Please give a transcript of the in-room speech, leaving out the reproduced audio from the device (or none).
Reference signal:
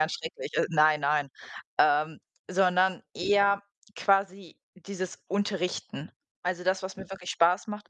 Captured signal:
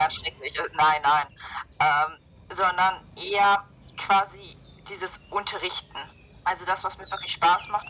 none